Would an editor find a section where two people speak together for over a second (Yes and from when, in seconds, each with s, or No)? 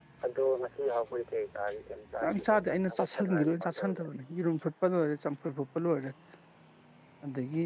Yes, from 2.2 s